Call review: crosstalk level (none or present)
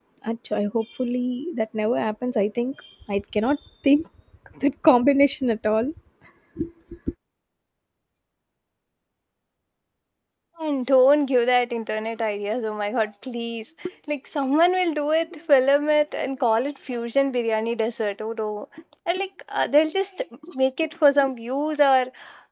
none